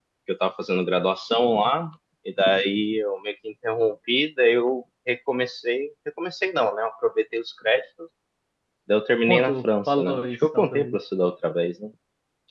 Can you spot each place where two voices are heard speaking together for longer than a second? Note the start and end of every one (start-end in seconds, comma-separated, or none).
9.3-11.0